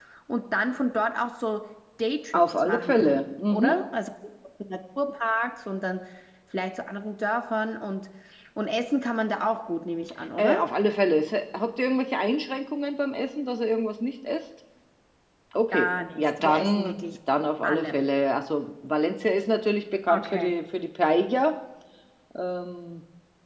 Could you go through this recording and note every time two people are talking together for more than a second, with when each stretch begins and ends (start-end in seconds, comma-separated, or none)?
2.3-3.8, 15.7-17.0